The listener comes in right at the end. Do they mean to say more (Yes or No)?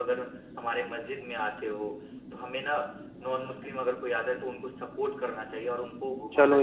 Yes